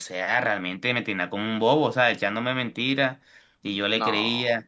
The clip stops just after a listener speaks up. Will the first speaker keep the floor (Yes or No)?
Yes